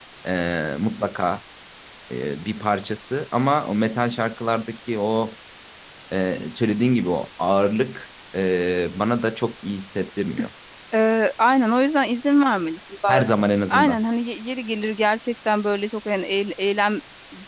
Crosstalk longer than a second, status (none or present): none